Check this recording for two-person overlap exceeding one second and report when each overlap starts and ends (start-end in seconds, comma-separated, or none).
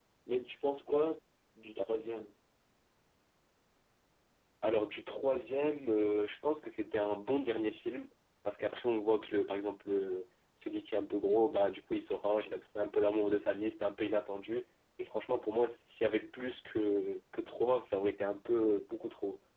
none